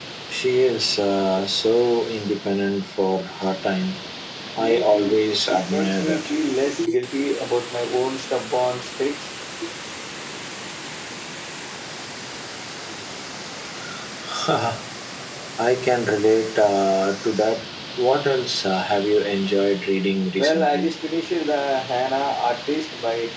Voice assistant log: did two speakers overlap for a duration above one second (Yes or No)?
Yes